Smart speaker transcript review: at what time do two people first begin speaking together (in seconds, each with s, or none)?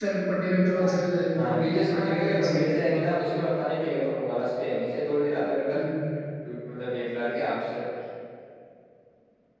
1.3 s